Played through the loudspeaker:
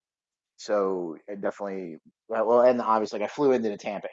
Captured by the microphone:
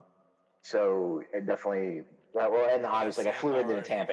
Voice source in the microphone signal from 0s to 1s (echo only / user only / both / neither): echo only